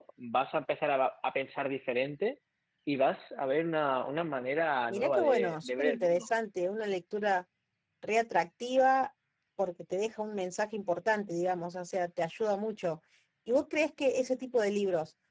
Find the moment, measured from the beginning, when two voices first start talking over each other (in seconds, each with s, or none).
4.9 s